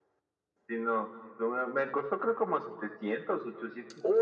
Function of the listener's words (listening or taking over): taking over